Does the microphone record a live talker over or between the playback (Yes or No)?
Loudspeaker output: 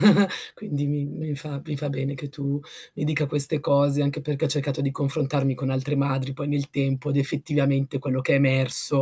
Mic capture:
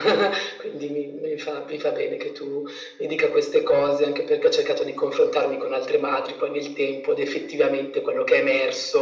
No